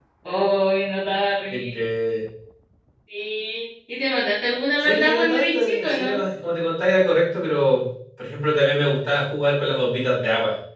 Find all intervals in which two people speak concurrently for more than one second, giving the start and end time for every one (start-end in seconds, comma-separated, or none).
4.8-6.2